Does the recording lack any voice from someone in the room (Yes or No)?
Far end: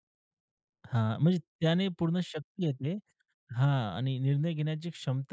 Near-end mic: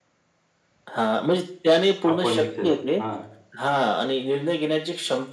No